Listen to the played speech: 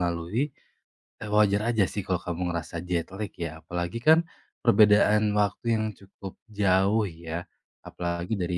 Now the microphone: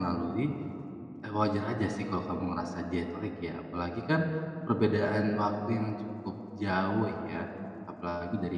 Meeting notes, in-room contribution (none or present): none